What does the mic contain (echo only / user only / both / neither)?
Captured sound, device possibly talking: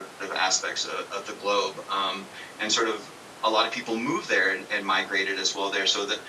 echo only